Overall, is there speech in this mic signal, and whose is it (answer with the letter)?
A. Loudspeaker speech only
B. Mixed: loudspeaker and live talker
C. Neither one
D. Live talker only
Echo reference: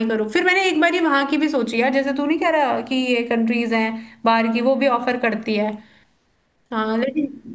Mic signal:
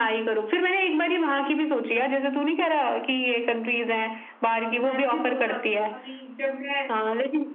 B